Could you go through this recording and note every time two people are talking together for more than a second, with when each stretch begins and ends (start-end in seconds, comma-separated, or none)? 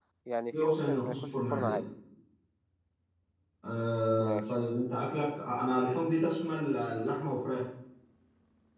0.6-1.8